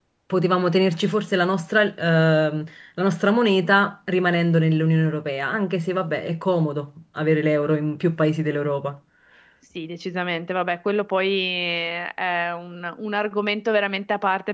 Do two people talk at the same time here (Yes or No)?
No